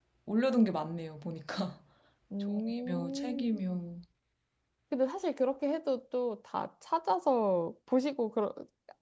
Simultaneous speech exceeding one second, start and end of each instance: 2.4-3.8

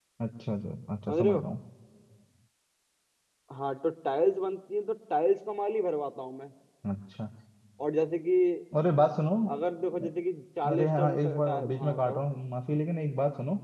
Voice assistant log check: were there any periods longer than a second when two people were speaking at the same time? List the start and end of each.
10.7-12.2

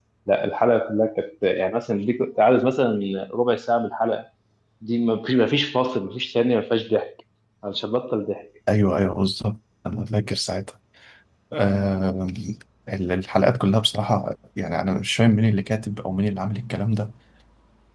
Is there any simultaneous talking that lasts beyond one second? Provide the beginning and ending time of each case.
none

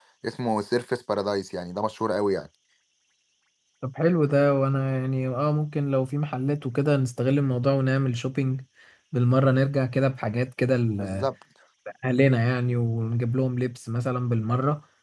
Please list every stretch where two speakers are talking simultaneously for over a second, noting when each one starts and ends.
none

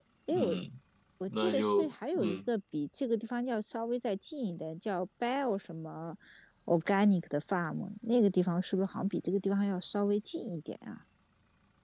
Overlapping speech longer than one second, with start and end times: 1.3-2.5

